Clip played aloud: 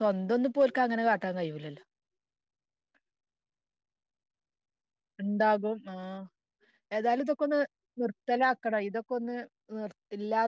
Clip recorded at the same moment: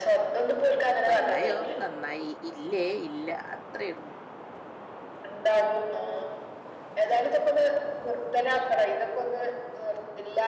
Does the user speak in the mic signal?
Yes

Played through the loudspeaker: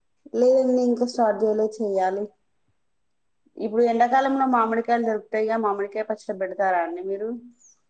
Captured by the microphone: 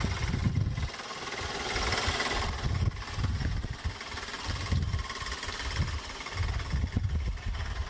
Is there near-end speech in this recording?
No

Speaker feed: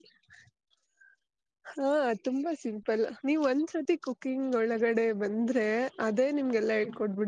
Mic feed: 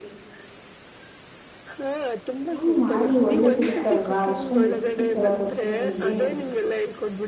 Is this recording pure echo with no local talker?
No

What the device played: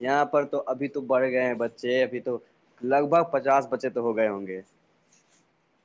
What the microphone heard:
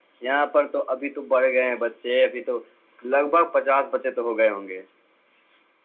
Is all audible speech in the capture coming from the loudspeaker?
Yes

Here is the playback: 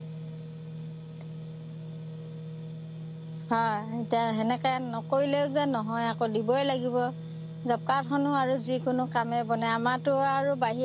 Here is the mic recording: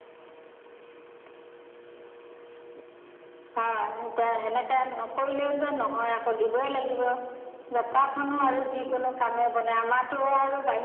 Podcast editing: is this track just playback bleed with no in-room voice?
Yes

